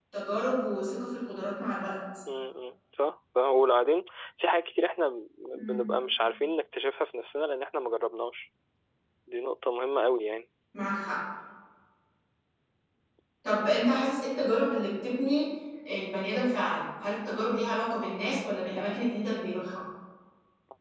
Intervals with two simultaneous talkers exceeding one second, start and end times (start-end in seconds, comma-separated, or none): none